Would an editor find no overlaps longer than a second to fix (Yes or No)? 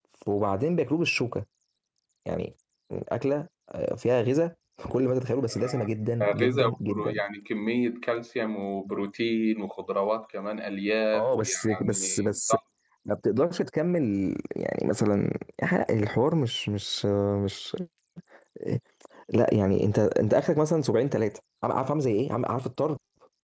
No